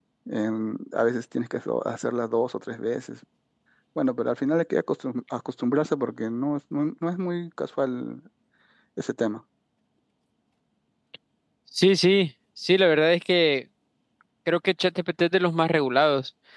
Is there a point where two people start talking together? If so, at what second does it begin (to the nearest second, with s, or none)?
none